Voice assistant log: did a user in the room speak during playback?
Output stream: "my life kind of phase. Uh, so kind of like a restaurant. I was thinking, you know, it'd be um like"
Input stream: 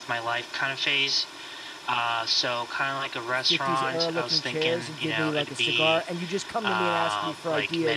Yes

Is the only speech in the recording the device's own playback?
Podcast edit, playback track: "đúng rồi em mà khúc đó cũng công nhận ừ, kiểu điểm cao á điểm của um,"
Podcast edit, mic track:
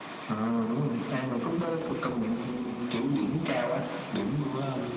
Yes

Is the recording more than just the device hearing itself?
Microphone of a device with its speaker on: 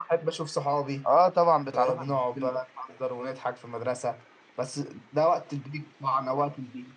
Yes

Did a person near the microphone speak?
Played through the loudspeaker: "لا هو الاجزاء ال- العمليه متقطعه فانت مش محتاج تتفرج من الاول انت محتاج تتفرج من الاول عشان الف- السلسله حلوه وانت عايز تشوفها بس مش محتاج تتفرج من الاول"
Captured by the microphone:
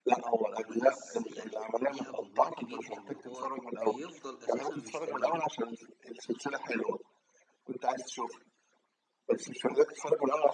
Yes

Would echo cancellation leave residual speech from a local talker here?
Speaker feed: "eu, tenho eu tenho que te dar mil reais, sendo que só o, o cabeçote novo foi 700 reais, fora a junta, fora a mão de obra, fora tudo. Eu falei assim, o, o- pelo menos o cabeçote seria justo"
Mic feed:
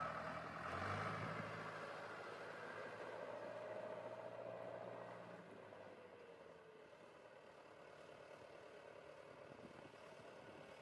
No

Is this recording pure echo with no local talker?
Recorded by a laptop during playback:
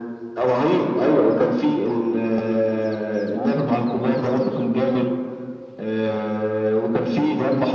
Yes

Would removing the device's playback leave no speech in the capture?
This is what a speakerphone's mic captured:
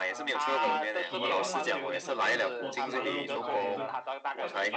No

